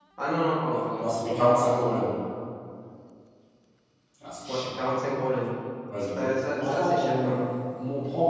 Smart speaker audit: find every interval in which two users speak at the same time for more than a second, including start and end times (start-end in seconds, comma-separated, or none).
6.2-7.4